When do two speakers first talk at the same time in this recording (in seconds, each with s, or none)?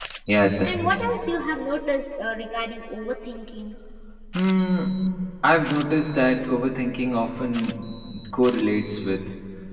none